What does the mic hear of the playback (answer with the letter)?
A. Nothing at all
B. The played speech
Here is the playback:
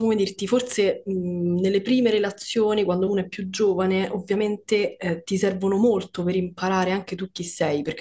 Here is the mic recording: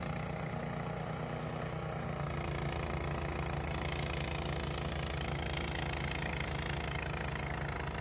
A